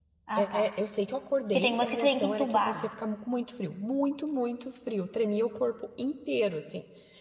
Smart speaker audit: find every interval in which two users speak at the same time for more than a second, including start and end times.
1.5-2.9

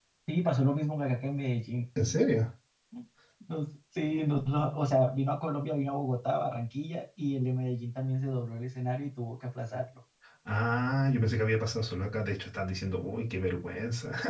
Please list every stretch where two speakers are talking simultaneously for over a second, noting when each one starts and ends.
none

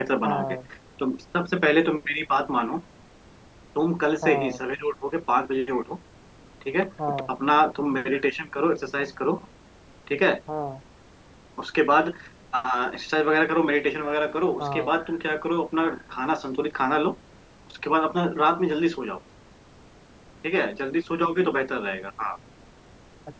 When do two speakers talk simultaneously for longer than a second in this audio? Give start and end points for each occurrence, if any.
none

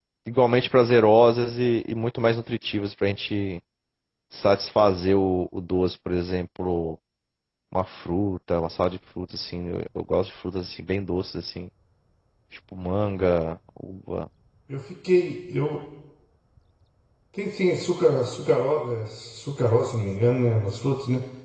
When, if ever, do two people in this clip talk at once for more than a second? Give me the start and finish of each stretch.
none

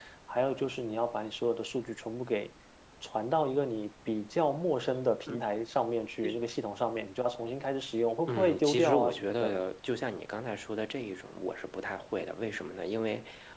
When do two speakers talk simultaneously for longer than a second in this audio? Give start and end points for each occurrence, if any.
8.3-9.5

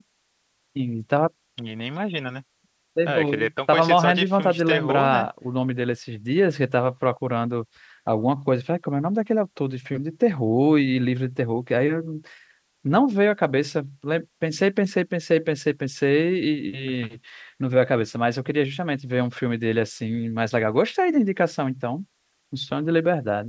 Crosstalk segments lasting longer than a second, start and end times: 3.0-5.3

